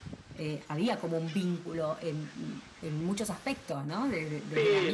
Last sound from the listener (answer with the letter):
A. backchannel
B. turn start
A